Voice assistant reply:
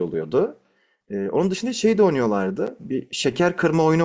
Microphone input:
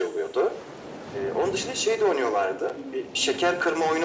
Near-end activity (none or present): none